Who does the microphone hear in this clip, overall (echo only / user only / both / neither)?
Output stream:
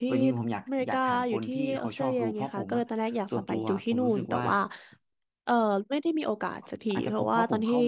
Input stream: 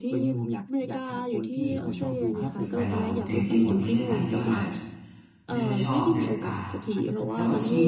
both